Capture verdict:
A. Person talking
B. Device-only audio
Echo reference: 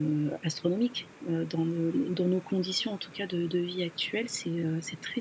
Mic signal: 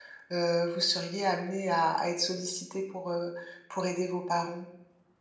A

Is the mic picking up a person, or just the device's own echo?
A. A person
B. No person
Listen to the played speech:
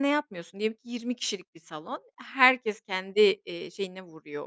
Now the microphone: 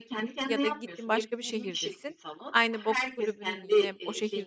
A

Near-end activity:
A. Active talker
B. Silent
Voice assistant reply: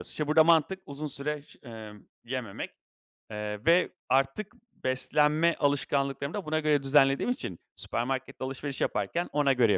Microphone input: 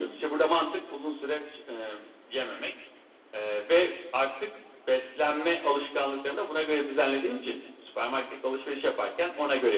B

